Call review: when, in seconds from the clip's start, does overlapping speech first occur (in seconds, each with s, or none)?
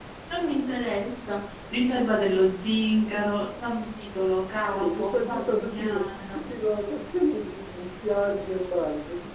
4.7 s